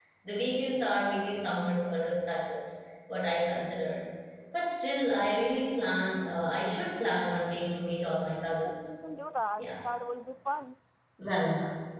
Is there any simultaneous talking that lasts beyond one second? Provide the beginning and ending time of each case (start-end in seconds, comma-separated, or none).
none